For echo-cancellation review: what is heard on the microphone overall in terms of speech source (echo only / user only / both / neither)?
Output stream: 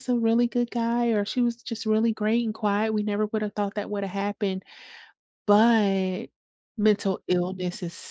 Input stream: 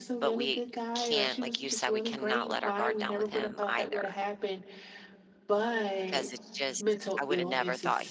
both